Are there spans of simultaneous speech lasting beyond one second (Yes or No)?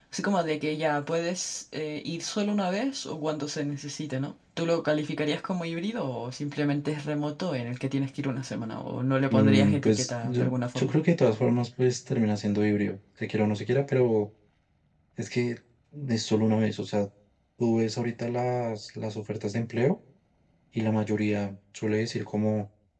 Yes